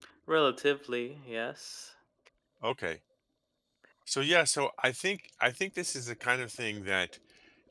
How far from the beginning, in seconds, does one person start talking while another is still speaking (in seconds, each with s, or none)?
none